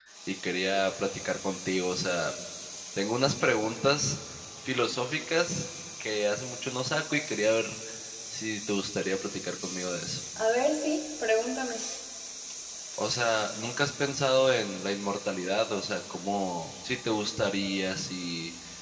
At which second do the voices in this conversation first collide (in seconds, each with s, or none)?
none